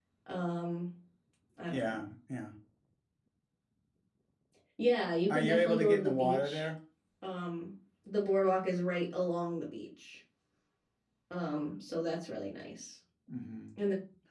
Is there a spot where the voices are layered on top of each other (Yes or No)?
Yes